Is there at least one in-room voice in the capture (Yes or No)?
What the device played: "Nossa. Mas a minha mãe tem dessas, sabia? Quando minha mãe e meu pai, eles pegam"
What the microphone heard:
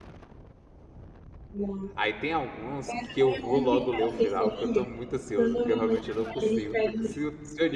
Yes